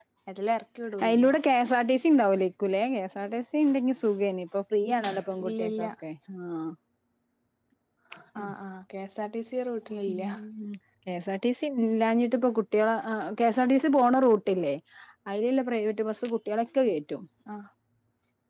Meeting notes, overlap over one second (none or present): none